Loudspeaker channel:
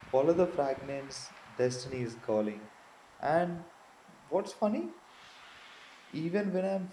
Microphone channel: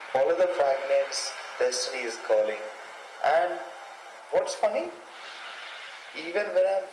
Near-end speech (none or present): none